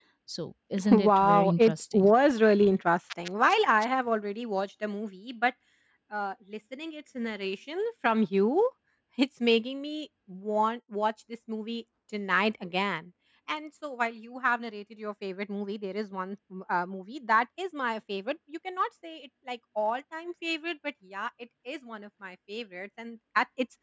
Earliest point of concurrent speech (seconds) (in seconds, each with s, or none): 0.9 s